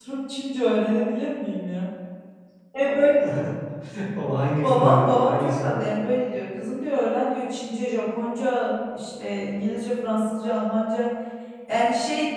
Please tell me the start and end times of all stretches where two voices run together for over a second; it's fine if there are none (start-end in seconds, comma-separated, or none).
4.6-5.8